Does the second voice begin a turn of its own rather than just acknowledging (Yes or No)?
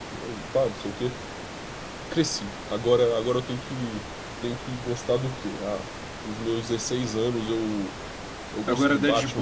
No